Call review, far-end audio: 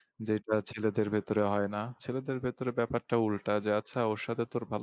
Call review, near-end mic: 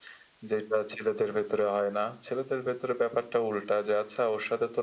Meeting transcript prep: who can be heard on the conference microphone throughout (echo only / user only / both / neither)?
echo only